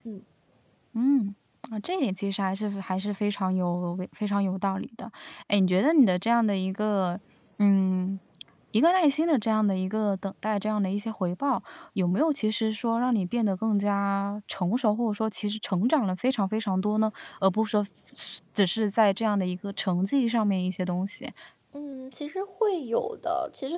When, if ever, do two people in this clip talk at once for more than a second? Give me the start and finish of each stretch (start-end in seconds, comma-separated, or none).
none